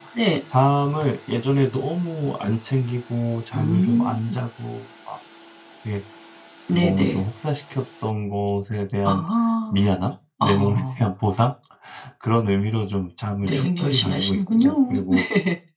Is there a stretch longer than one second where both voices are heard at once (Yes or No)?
Yes